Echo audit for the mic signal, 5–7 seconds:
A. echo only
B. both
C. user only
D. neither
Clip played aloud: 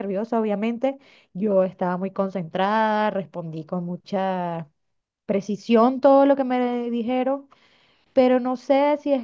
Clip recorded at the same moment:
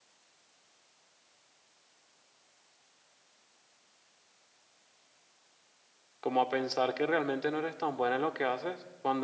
C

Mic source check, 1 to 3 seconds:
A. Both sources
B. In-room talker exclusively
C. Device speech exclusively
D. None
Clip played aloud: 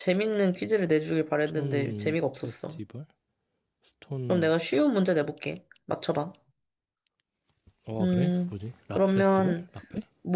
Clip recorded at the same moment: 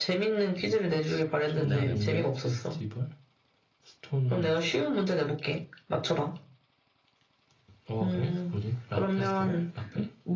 A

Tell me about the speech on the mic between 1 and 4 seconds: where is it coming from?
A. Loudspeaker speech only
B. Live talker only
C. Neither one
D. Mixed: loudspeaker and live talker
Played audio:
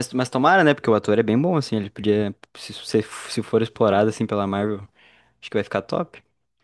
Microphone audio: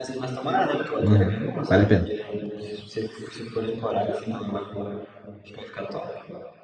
D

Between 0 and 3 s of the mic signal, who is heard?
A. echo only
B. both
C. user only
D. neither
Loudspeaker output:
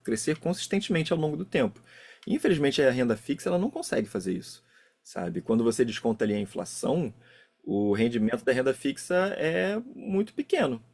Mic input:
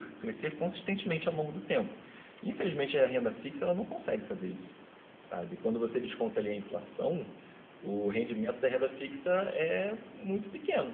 A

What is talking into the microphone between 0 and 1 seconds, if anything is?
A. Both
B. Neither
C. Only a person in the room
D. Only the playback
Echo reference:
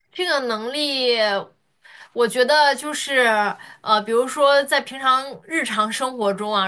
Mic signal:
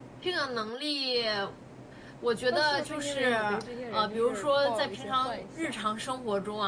D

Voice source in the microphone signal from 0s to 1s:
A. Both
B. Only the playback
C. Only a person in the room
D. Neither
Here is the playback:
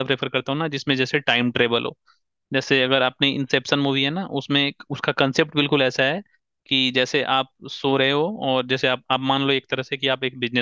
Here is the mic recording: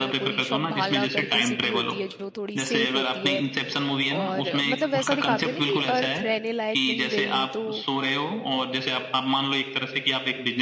A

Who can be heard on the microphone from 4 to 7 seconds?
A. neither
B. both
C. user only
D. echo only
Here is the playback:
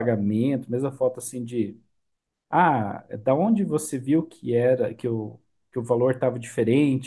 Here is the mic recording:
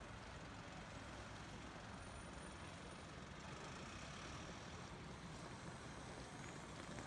A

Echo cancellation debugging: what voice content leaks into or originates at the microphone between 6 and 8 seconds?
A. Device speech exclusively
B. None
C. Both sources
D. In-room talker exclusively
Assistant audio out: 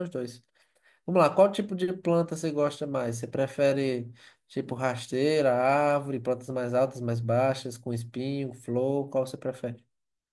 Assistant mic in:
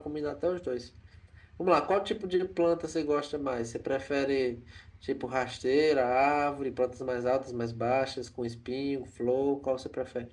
A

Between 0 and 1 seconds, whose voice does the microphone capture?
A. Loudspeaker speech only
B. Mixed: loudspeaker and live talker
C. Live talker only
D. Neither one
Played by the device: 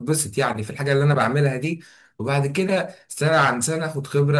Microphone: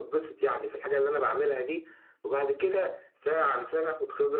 A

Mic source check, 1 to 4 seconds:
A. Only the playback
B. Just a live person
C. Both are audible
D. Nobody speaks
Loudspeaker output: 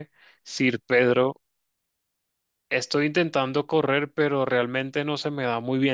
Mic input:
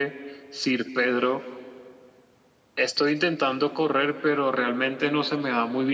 A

